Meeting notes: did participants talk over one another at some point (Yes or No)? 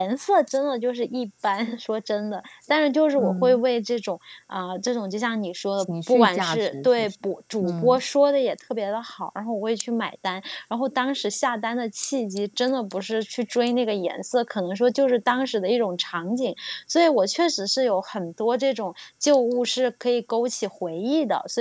Yes